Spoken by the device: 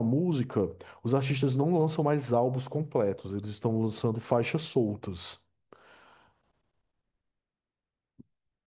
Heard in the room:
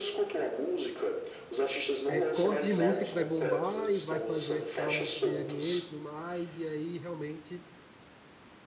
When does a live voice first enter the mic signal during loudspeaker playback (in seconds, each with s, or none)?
2.0 s